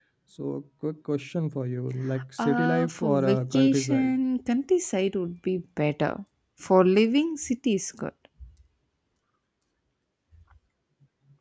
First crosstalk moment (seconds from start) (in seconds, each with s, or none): 2.4 s